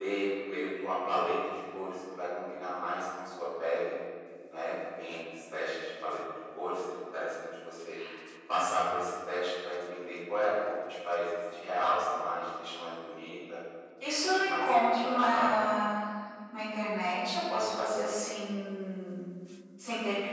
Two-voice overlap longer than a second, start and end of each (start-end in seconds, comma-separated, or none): 14.2-15.7